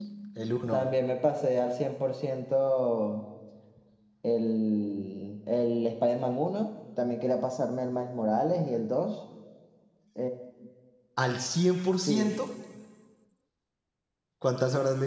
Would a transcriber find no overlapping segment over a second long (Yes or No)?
Yes